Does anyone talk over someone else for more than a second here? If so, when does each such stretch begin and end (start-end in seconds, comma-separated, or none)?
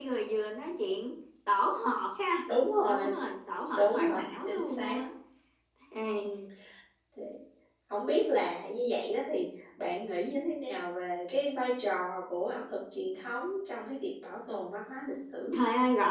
3.8-5.0